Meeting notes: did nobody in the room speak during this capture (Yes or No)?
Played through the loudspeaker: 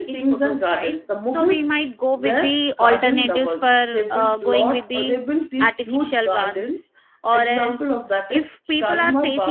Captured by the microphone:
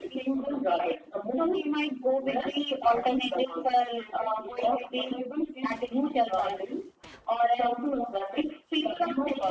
Yes